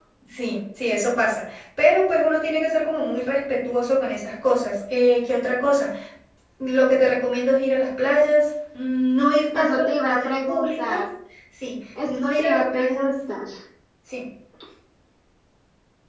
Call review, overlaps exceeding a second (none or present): present